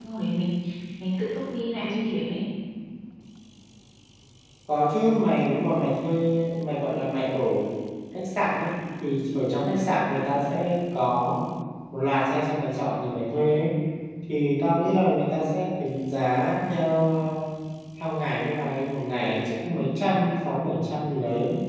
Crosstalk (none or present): none